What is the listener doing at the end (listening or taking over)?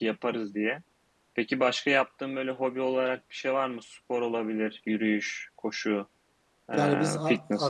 taking over